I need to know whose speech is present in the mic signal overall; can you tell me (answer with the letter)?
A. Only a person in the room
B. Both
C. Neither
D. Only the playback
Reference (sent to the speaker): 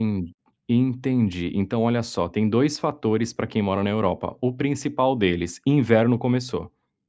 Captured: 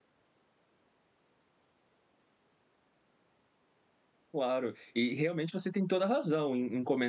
A